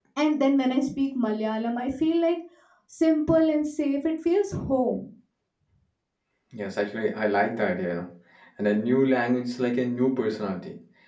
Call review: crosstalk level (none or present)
none